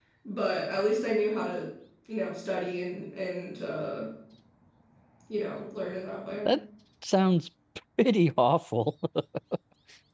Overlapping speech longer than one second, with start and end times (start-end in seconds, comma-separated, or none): none